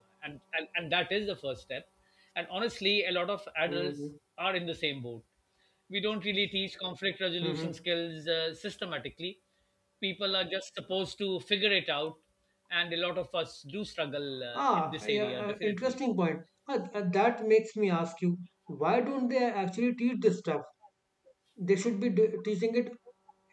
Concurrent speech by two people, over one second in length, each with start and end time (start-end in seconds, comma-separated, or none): 14.5-15.9